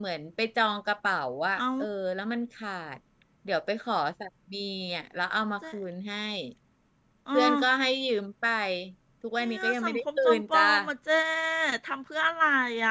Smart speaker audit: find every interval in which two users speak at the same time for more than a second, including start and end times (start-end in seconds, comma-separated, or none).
9.4-10.6